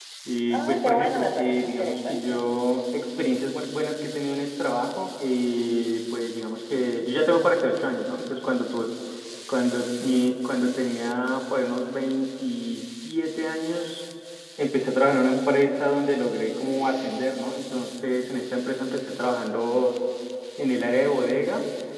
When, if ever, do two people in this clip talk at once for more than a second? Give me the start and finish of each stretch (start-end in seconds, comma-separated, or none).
0.5-2.4